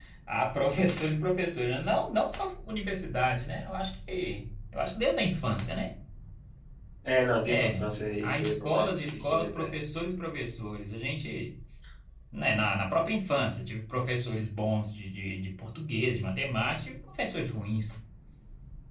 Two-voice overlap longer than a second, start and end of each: 8.2-9.7

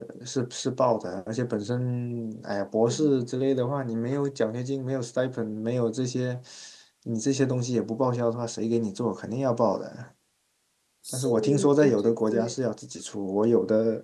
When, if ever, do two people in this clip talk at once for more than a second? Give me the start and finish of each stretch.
11.1-12.5

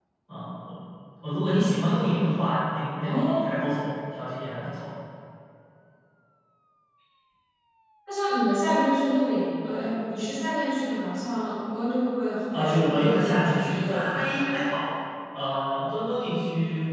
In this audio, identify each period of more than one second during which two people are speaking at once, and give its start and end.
12.5-14.6

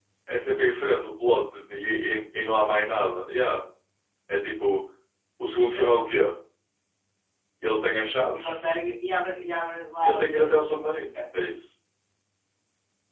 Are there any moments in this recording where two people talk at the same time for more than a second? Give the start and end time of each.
none

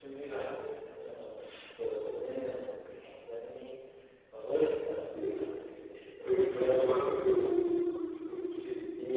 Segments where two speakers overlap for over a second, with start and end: 6.2-7.7

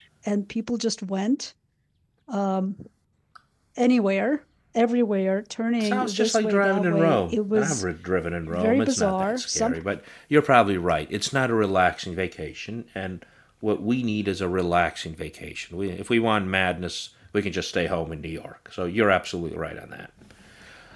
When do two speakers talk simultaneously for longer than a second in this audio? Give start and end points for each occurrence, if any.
5.8-7.8, 8.5-9.8

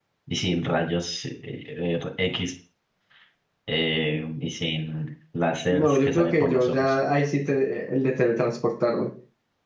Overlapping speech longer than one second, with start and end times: 5.7-6.9

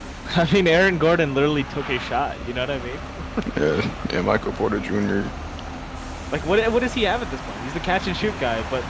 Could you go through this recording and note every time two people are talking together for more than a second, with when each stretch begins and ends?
none

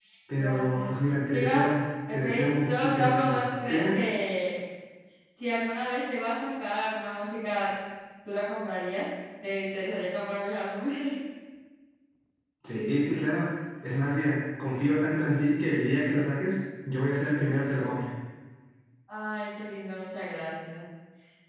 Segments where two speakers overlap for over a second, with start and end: 2.1-3.8

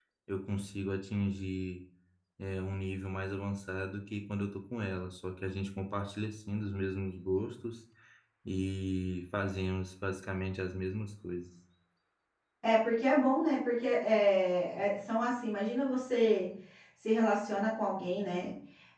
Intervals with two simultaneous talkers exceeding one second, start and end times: none

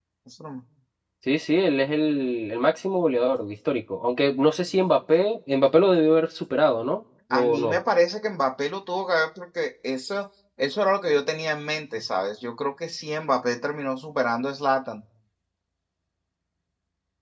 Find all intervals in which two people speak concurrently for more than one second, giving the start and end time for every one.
none

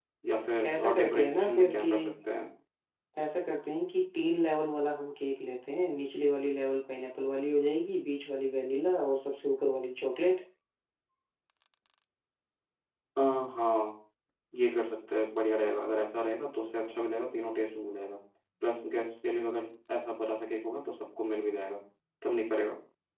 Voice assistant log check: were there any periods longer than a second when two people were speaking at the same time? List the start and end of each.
0.6-1.9

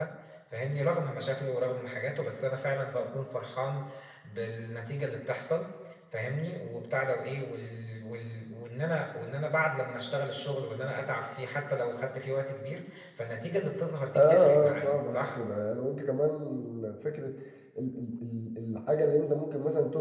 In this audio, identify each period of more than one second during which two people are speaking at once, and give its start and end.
14.2-15.4

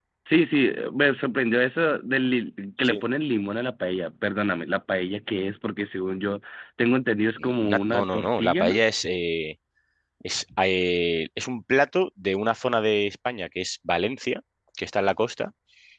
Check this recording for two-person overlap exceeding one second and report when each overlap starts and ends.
7.6-8.8

